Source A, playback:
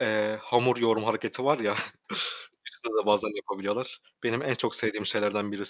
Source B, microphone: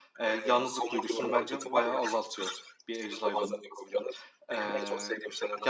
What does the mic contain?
both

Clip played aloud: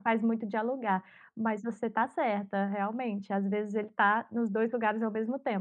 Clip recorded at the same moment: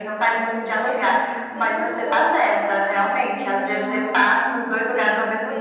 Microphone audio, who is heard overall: both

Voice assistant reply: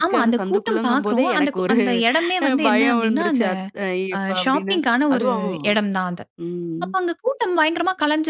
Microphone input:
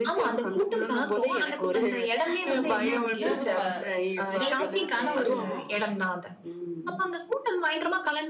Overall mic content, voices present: both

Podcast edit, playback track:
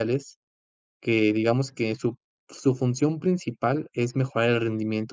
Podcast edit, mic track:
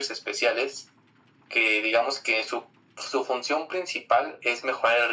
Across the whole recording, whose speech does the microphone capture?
echo only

